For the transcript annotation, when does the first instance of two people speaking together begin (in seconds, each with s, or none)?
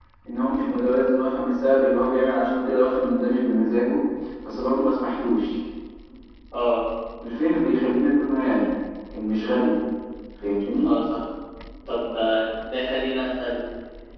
none